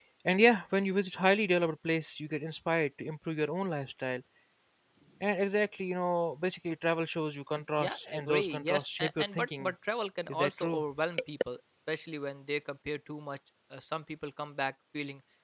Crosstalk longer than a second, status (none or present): present